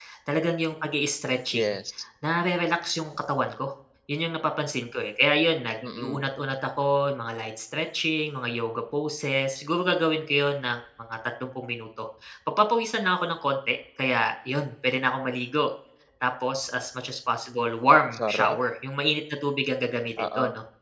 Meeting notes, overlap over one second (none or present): none